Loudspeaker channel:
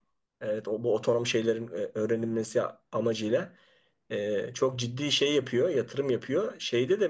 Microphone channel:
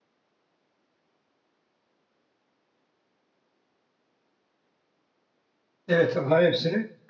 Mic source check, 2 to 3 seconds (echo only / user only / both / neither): neither